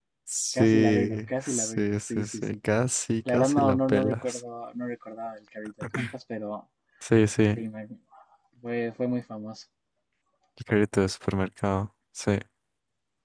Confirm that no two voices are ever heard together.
No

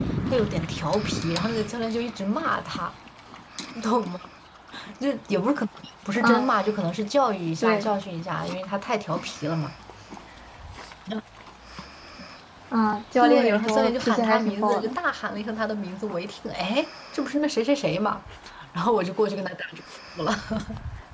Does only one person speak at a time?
No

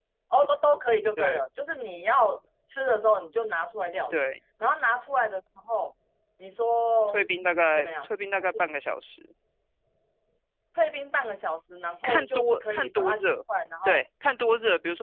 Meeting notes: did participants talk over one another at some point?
Yes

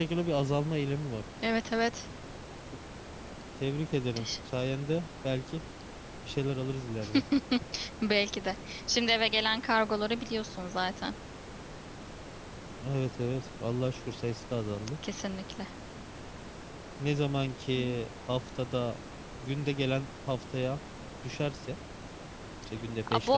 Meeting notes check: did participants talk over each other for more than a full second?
No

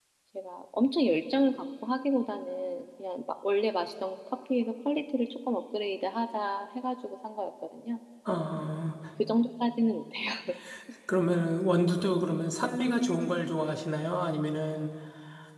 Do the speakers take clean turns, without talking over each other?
Yes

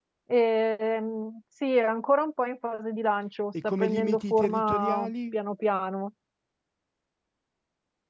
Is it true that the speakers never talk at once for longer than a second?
No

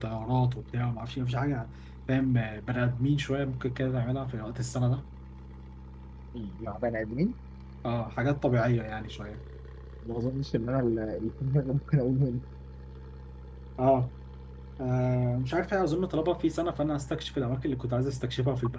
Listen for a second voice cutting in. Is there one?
No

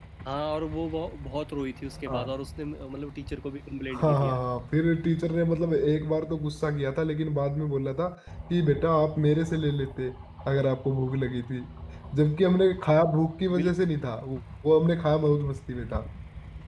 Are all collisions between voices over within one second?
Yes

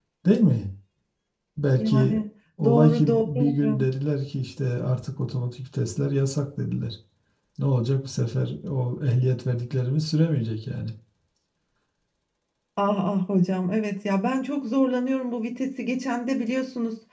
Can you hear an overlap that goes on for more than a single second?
Yes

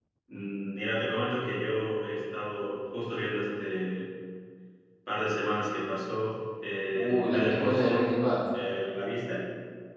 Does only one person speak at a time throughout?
No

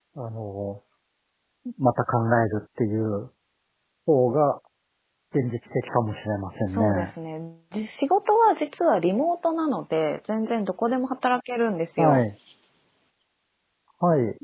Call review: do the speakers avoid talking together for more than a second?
Yes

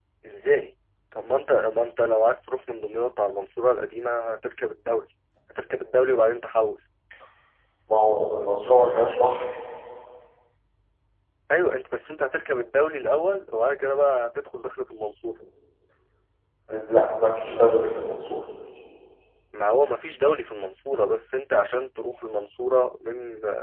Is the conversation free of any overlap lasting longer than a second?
Yes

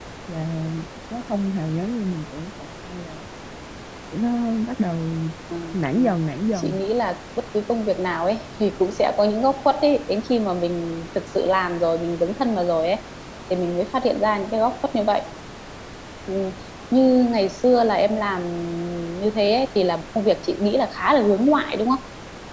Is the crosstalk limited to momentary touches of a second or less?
Yes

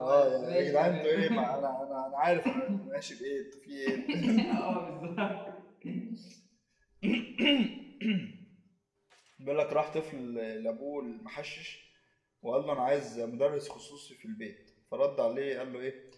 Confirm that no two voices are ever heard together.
No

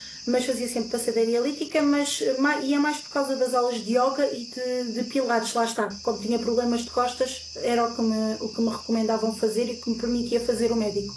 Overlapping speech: No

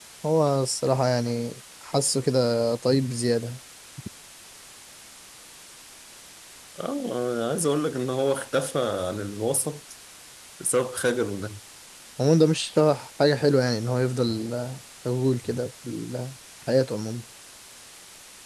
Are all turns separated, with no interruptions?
Yes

